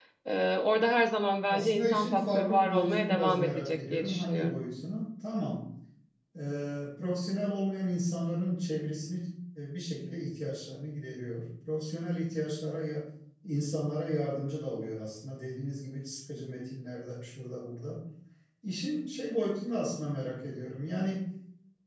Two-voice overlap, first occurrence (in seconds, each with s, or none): 1.5 s